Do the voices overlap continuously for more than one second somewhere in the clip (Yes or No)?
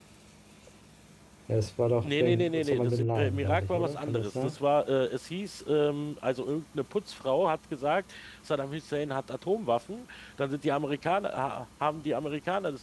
Yes